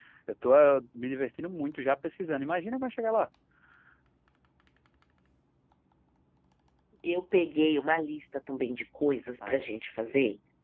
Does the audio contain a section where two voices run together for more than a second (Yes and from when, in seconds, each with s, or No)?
No